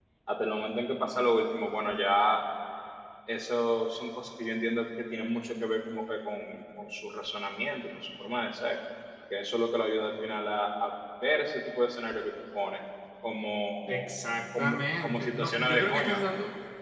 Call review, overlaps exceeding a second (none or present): present